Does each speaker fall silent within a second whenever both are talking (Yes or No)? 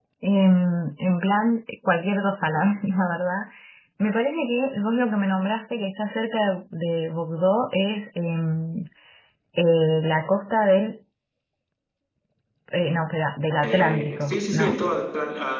No